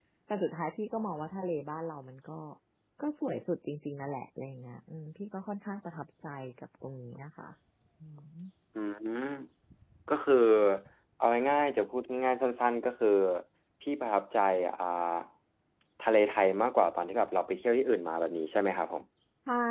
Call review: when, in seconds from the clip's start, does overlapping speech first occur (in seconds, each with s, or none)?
none